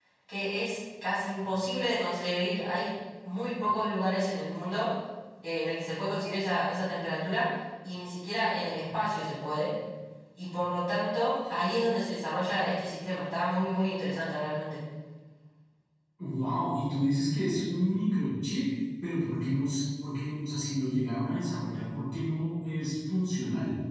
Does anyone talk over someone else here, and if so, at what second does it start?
none

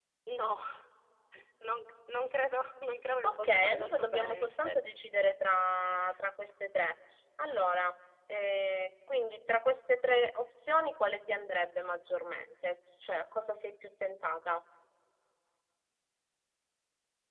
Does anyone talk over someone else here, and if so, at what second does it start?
3.1 s

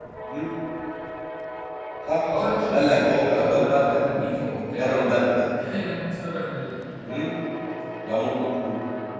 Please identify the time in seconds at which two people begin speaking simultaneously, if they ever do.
2.2 s

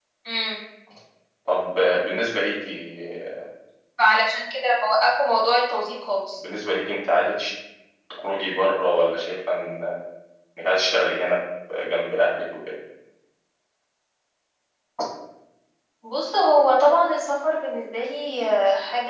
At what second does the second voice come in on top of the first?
none

